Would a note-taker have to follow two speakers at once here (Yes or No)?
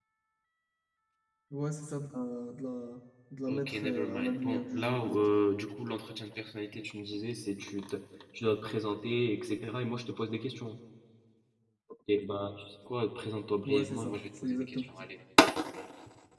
Yes